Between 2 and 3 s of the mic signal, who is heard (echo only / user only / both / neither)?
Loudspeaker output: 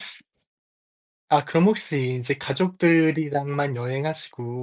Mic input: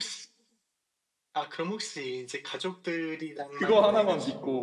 echo only